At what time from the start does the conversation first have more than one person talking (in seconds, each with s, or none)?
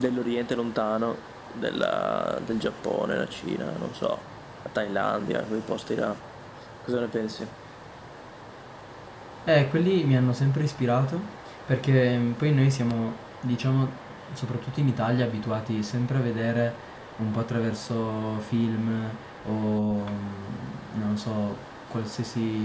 none